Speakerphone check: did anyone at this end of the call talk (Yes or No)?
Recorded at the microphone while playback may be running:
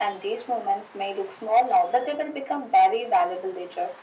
No